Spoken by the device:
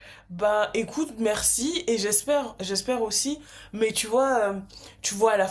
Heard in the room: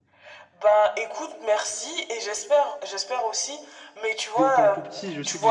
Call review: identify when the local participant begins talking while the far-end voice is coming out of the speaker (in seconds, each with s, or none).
4.4 s